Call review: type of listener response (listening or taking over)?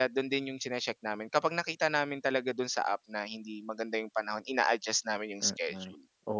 taking over